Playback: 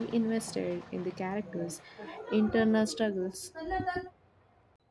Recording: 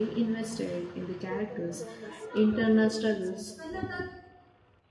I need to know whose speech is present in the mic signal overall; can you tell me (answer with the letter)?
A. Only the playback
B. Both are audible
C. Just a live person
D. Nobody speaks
B